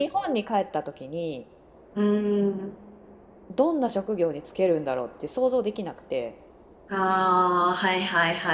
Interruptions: none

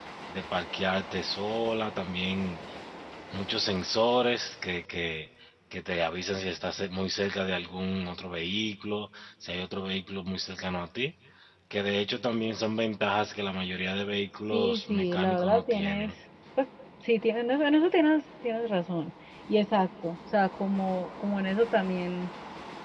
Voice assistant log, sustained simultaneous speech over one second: present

